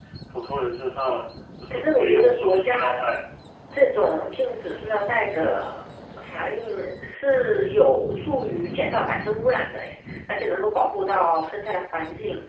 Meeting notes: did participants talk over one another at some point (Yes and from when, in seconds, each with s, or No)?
Yes, from 1.7 s